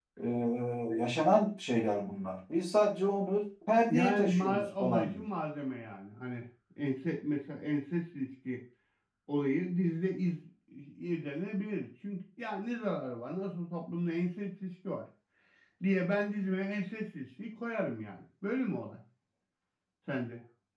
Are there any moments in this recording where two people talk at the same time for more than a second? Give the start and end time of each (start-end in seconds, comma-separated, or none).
3.9-5.2